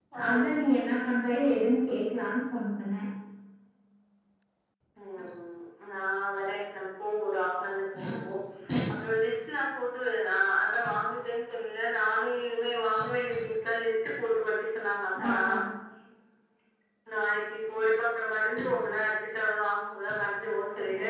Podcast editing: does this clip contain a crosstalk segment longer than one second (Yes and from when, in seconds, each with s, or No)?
No